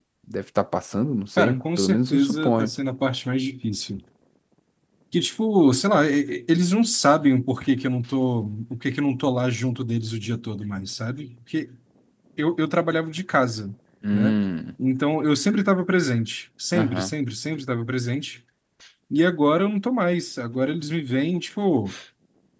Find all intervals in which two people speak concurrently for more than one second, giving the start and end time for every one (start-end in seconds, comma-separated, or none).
1.4-2.7